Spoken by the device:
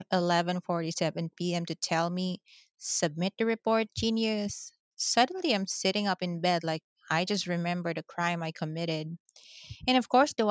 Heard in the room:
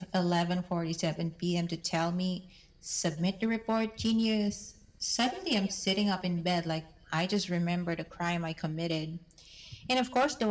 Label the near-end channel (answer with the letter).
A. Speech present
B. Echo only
B